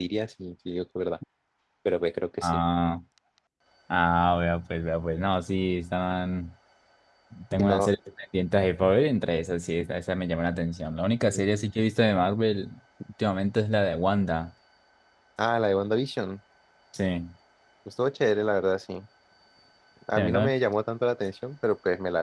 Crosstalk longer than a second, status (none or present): none